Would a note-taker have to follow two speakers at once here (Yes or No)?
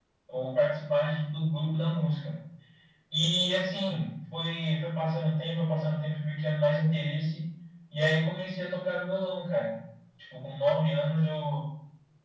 No